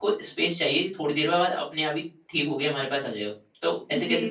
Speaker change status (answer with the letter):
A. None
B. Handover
B